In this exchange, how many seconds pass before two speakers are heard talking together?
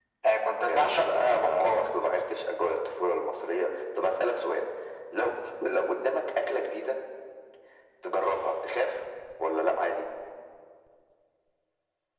0.6 s

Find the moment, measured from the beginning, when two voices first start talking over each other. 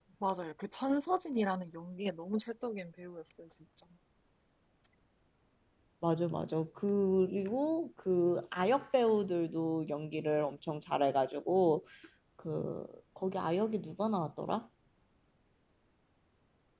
none

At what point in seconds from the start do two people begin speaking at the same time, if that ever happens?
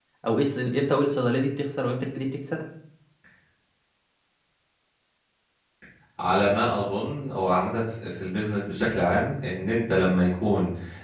none

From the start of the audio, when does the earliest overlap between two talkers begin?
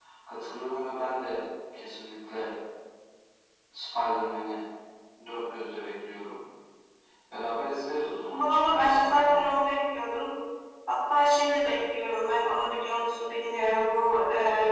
8.3 s

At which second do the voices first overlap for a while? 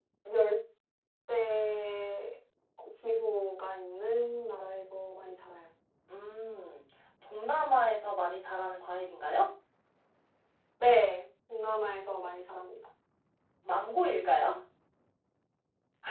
none

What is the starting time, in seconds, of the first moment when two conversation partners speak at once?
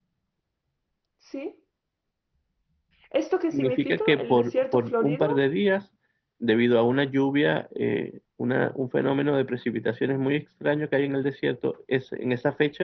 3.5 s

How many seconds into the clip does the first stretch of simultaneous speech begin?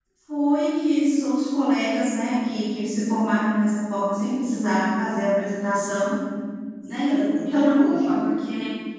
6.8 s

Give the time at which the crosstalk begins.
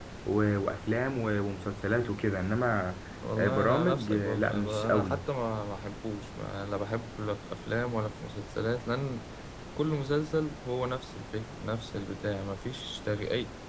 3.4 s

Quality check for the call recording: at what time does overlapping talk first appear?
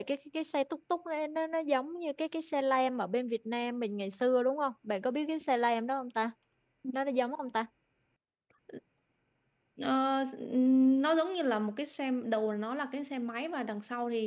none

